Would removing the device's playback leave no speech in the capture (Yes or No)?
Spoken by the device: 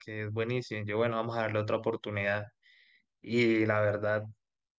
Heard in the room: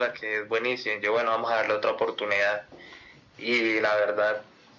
Yes